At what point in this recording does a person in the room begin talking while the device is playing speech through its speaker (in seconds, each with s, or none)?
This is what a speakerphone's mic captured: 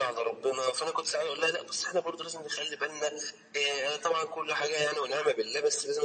none